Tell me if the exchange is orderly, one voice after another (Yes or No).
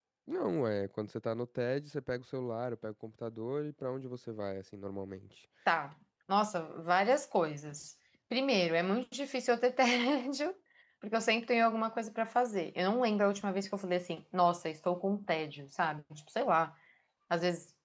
Yes